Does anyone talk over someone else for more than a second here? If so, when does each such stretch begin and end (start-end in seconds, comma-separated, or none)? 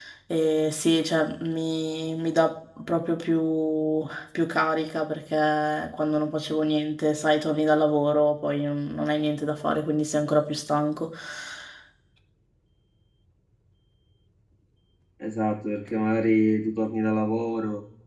none